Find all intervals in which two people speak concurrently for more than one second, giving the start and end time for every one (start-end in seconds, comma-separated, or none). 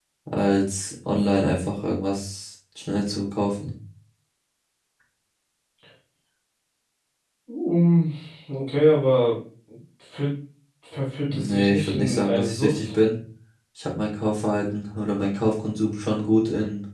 11.2-12.8